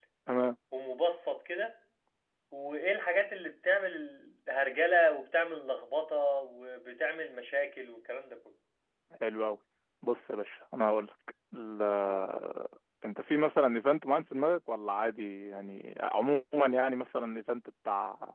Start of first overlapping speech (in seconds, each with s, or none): none